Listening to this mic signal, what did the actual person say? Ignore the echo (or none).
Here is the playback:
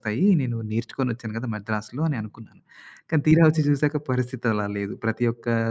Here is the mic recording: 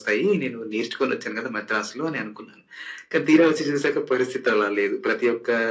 none